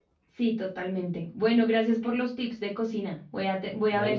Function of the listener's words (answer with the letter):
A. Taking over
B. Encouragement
B